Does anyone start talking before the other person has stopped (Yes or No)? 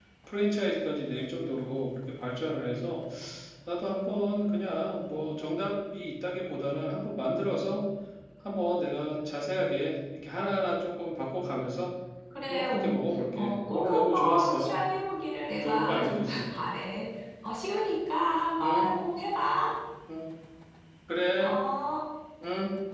Yes